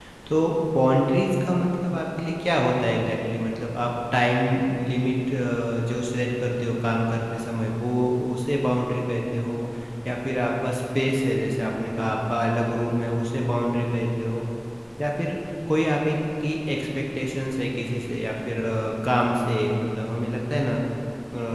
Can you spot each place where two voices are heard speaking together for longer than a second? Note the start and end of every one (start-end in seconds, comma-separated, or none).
none